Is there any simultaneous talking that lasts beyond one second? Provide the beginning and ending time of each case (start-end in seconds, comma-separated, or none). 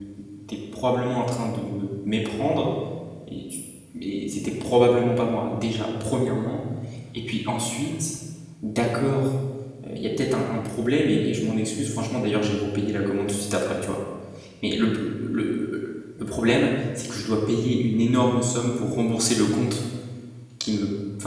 none